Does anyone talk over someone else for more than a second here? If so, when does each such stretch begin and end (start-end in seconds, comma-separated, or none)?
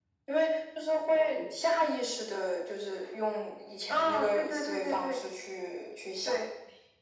3.9-5.2